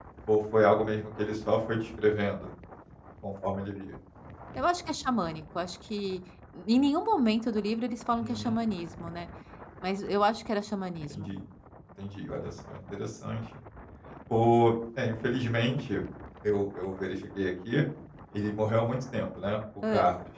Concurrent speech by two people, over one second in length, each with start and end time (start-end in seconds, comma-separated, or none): none